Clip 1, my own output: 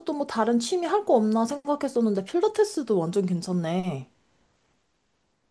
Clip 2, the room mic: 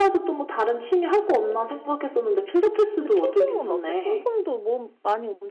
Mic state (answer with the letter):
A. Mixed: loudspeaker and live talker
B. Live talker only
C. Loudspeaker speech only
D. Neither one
A